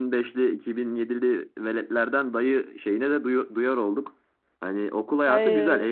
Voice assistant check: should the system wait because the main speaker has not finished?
Yes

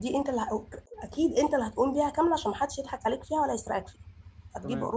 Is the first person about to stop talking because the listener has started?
No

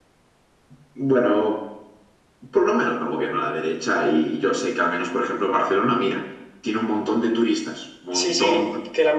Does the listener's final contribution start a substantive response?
Yes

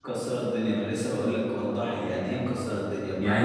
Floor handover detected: Yes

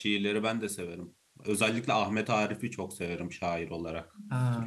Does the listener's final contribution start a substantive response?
Yes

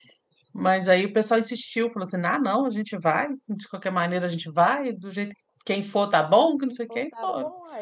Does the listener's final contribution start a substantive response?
Yes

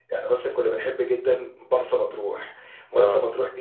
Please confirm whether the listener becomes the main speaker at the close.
No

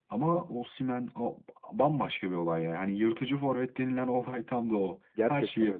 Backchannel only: No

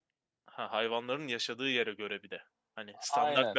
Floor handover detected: Yes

